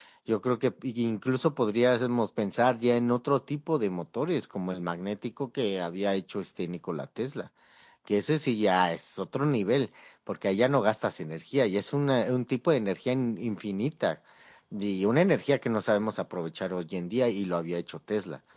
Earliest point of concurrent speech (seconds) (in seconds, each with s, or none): none